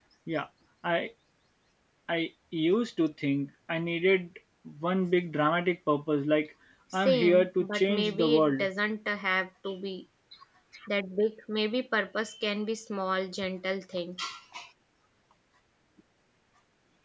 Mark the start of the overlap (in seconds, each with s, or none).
7.0 s